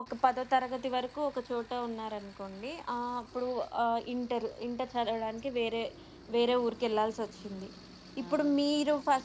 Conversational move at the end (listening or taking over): listening